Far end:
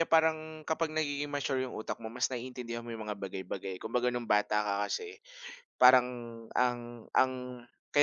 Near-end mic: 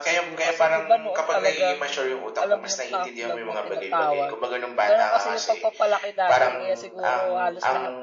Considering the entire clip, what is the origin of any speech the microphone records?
both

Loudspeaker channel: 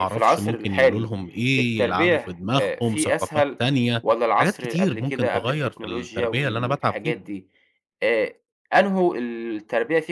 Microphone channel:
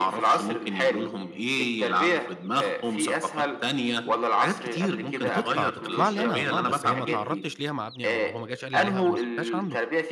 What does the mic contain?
both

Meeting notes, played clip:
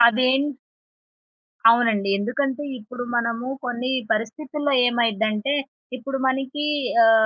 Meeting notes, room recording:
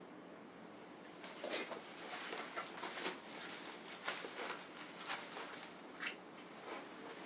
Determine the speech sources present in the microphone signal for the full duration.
neither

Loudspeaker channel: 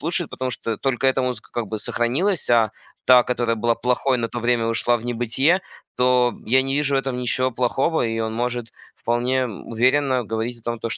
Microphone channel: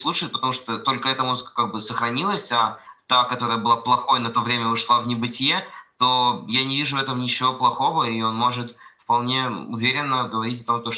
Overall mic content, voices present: echo only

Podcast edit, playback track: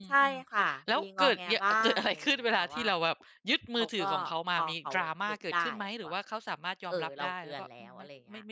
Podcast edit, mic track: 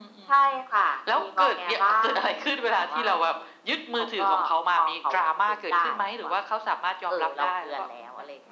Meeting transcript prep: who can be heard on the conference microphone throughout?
echo only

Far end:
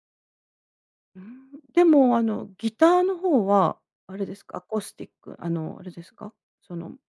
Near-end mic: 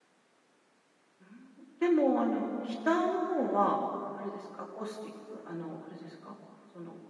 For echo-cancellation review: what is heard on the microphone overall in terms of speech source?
echo only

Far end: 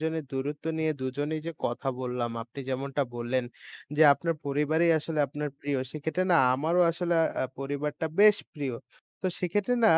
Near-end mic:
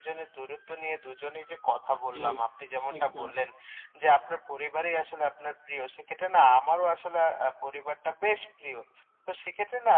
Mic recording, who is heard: both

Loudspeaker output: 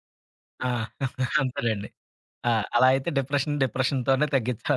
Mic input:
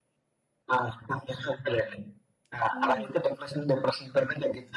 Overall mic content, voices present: both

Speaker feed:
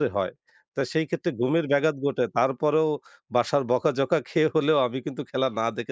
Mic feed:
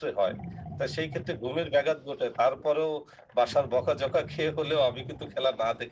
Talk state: echo only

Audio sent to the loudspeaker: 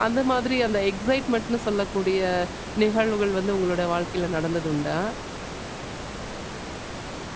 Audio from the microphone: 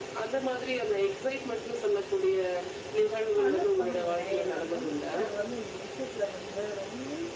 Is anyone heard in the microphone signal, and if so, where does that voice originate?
both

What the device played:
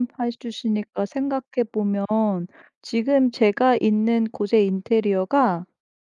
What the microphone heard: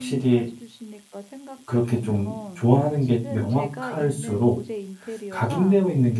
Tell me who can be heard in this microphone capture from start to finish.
both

